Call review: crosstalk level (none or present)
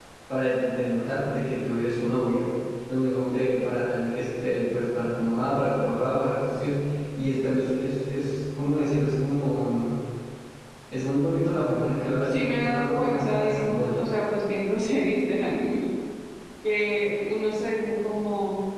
present